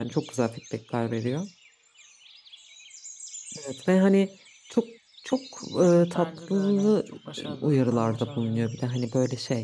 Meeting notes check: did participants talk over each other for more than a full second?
Yes, from 6.0 s

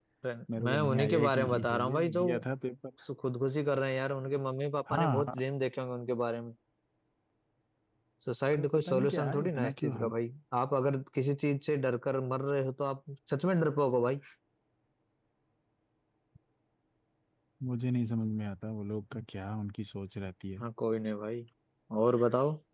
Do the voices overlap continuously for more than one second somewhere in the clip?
Yes, from 0.6 s

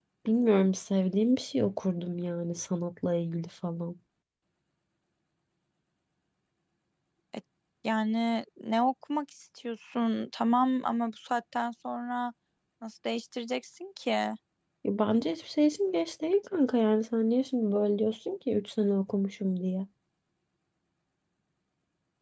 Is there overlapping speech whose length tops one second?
No

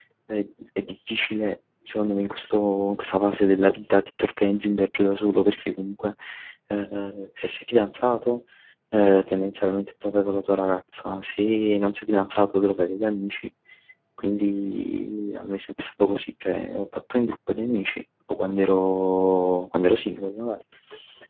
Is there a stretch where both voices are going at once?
No

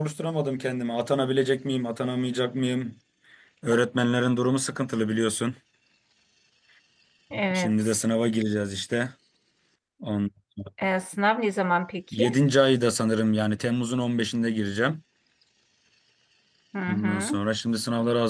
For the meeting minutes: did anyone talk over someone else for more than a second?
No

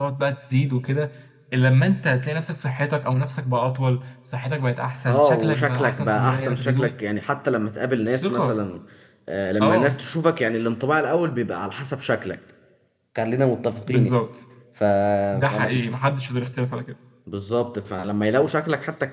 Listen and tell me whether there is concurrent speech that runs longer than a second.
Yes, from 5.1 s

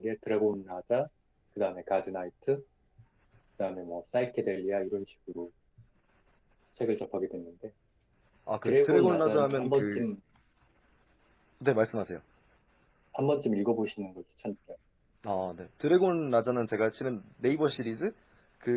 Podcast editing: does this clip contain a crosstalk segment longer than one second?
Yes, from 8.6 s

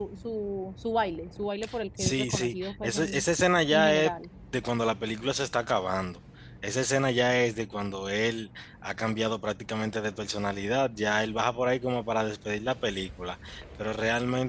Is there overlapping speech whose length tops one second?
Yes, from 2.0 s

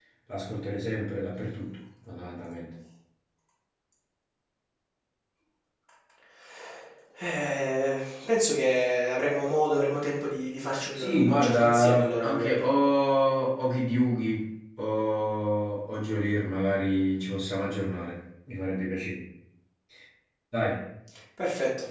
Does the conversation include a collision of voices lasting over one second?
Yes, from 10.9 s

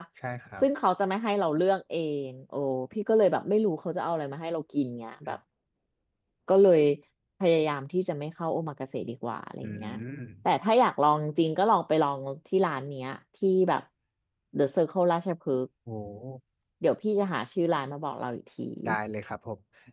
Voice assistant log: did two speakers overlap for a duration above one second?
No

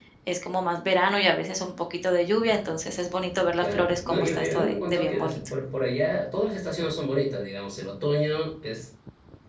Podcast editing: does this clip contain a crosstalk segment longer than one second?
Yes, from 3.6 s

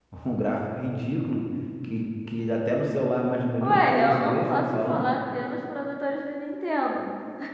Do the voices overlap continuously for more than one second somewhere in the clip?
Yes, from 3.6 s

